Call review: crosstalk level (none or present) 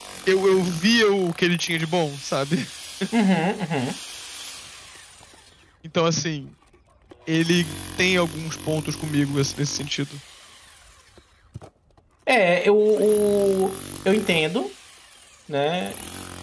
none